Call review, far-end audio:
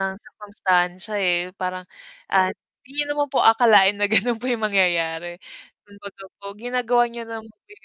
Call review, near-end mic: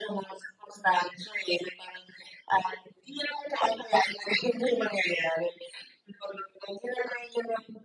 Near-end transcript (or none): none